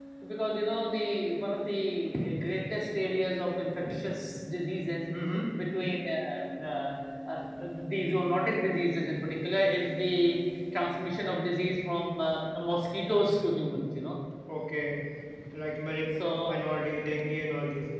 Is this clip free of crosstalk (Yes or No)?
Yes